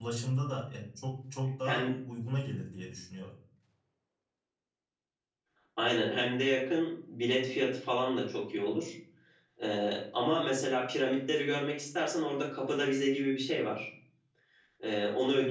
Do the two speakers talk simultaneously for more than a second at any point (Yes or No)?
No